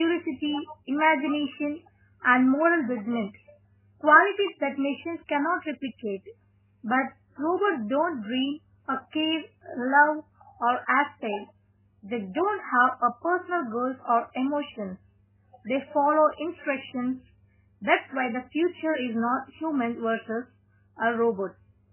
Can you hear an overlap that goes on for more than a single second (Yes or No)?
No